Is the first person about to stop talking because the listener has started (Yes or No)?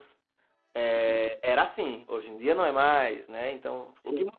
No